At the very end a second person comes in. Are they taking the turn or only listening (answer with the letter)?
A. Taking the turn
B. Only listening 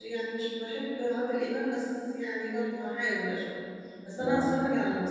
B